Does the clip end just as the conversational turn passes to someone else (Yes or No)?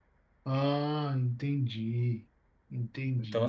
Yes